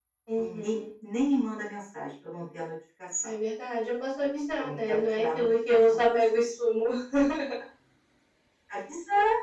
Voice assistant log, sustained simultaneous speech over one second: present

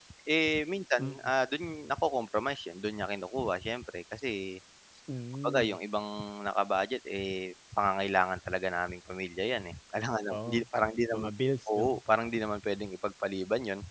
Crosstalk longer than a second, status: none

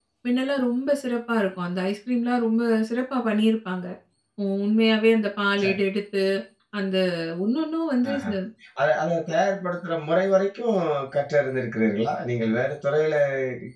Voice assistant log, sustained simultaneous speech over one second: none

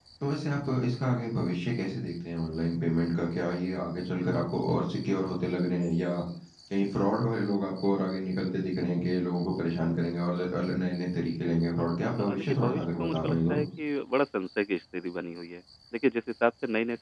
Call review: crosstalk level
present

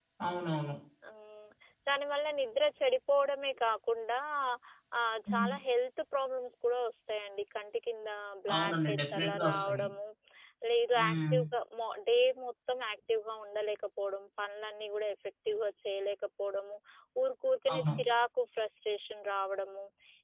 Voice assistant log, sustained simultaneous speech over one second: present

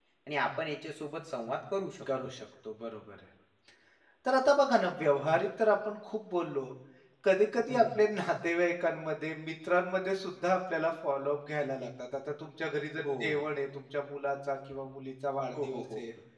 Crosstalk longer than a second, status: none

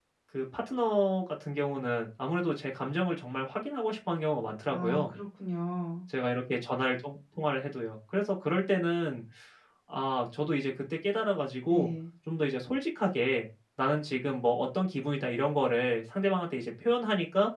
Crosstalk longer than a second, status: none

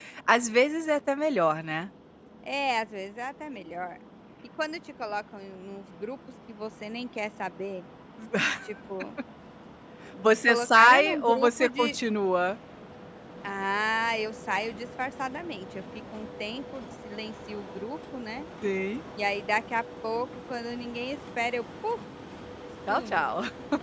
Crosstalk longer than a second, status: present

